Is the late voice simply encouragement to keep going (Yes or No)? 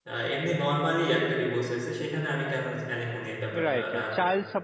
No